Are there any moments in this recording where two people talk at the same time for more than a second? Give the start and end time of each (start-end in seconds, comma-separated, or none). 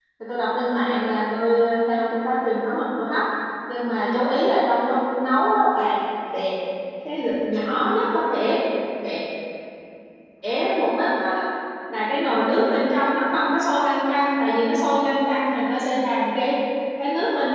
none